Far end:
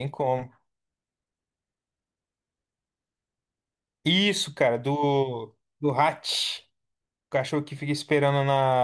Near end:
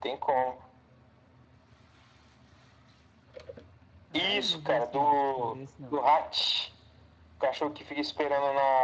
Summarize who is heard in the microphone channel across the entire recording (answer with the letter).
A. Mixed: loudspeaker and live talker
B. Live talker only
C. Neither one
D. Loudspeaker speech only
A